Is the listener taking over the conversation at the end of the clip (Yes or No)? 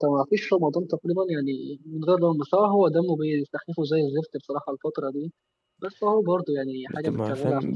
Yes